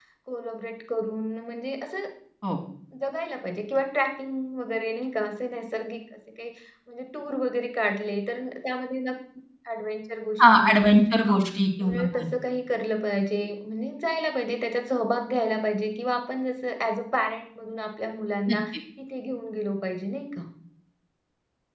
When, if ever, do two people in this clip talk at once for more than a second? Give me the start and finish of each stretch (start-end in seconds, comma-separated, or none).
none